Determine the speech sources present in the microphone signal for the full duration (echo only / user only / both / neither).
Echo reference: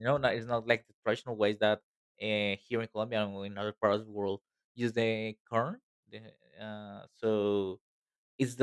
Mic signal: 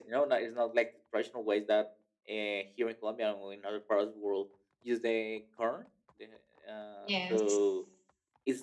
both